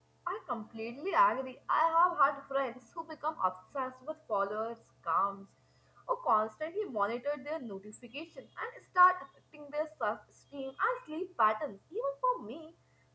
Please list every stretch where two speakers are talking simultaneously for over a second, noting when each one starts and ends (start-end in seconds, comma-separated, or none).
none